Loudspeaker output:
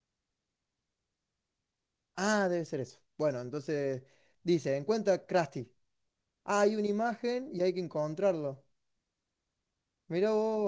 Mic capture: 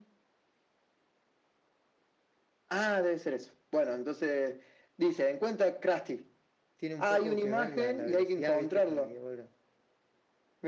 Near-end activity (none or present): present